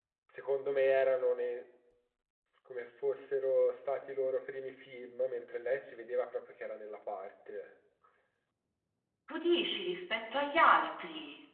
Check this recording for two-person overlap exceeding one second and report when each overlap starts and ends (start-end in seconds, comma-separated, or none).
none